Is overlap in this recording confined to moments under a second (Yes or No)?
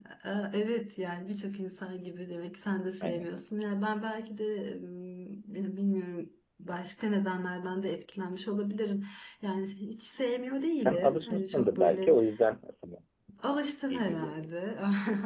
No